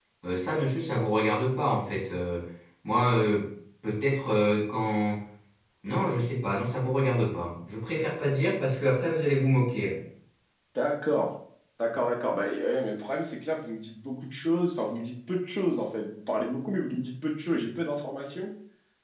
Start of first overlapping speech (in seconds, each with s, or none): none